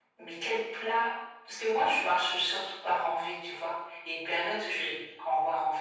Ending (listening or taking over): listening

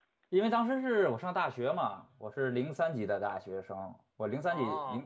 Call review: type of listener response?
listening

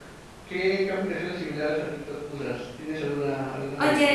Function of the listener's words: taking over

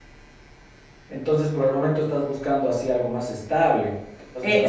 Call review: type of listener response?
taking over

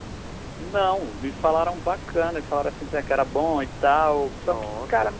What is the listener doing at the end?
listening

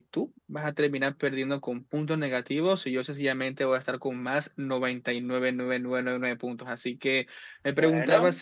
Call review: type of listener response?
listening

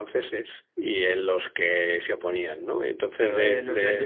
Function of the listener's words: taking over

